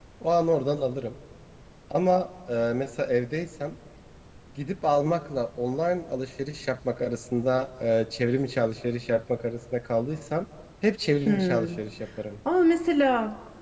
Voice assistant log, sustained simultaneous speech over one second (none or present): none